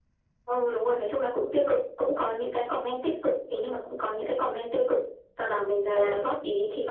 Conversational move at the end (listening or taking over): listening